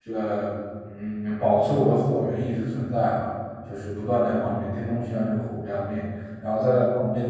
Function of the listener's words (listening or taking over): listening